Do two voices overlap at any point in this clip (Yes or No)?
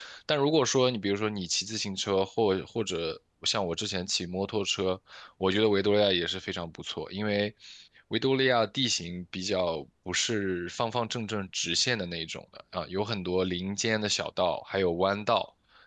No